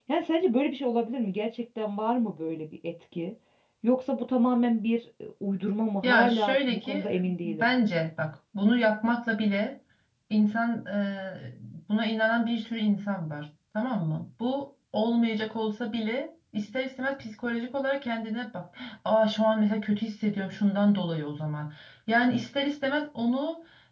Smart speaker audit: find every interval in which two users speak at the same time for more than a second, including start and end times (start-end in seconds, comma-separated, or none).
6.0-7.7